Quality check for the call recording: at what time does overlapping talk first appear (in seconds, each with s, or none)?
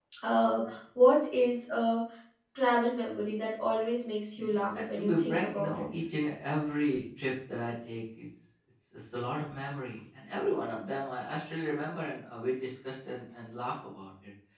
4.4 s